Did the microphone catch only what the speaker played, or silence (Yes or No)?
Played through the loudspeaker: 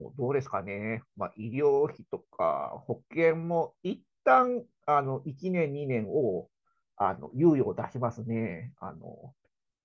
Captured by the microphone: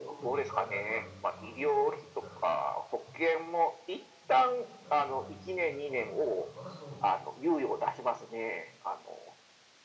No